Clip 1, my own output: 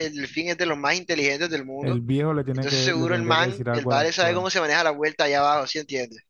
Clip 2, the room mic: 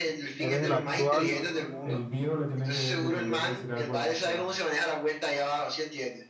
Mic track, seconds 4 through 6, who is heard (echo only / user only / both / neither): echo only